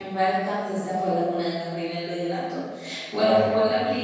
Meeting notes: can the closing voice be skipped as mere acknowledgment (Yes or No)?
Yes